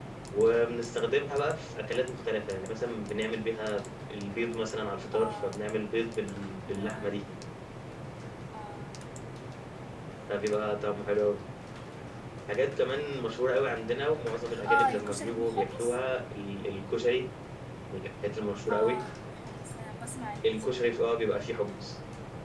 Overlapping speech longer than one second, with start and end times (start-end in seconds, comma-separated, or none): 14.7-16.0